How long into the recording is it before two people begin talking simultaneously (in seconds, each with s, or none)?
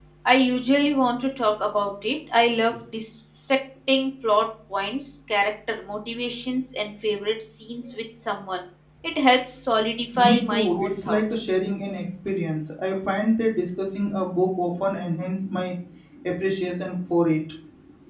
10.1 s